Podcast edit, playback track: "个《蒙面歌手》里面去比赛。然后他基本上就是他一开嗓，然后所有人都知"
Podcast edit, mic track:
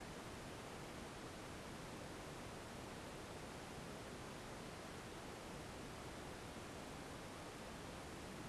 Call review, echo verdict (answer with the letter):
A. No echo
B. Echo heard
A